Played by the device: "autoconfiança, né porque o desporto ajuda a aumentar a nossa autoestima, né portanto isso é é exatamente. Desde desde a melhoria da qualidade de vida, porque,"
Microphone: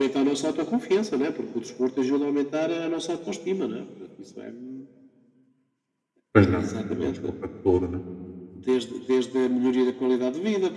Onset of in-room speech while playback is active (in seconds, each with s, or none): 6.3 s